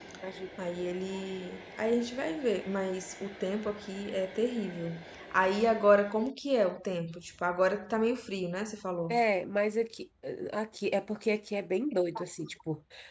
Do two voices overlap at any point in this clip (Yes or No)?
No